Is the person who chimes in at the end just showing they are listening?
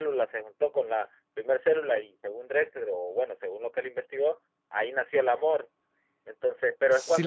No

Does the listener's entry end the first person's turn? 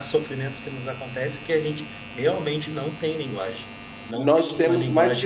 Yes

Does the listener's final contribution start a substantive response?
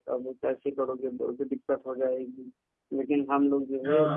No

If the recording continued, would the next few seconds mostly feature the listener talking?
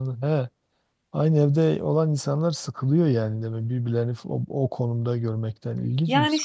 Yes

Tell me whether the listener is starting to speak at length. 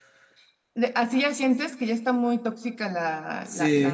Yes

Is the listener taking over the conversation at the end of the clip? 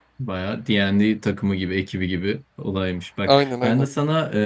No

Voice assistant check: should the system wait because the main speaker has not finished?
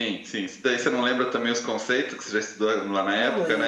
No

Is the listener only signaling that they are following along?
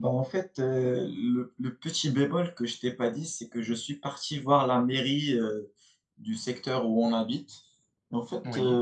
Yes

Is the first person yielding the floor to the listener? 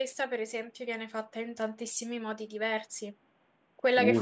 No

